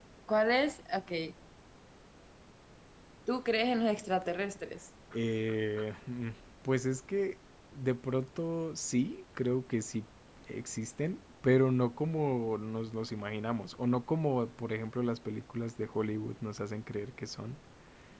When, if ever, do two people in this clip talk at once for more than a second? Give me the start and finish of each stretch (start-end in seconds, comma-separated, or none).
none